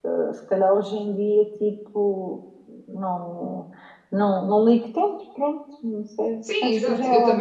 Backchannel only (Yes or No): No